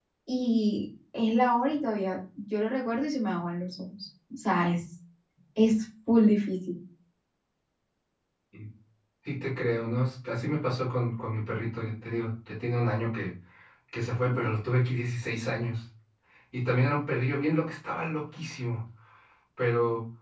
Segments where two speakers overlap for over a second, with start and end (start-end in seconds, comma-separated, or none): none